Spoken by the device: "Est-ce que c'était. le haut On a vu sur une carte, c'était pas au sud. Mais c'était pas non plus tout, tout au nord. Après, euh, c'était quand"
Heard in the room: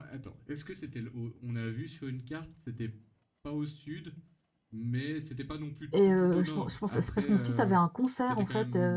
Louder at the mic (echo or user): user